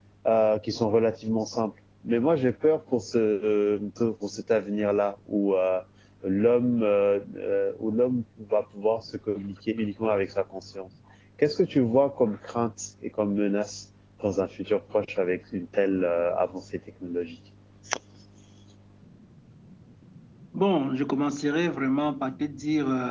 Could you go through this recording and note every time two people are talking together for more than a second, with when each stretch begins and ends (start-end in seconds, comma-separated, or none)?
none